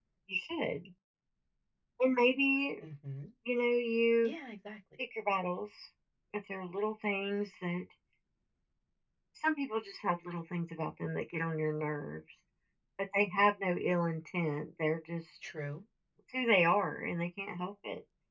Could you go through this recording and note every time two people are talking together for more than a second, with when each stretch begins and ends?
none

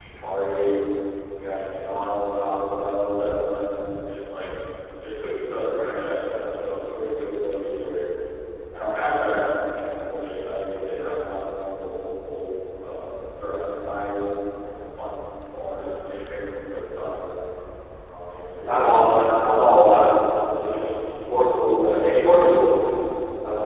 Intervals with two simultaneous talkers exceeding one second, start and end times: 18.6-20.1

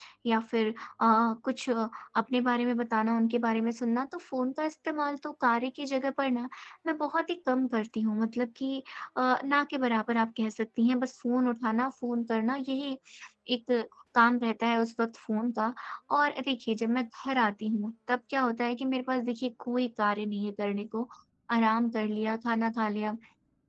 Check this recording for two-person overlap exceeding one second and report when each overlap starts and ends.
none

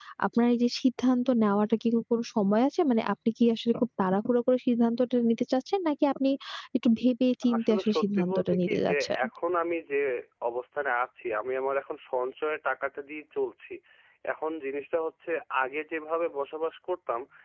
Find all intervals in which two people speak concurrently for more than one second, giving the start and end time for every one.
7.5-9.2

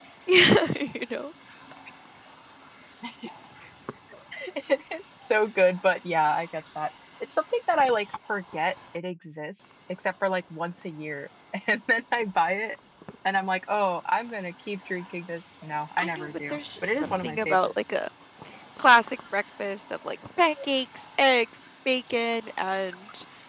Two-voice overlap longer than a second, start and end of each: 16.0-17.7

